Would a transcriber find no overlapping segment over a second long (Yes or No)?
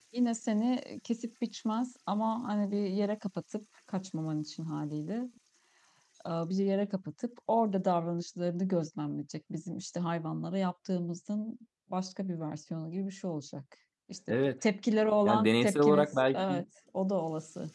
No